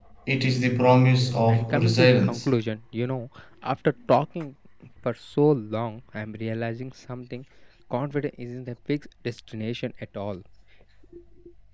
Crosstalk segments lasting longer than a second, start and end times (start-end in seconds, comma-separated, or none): 1.2-2.5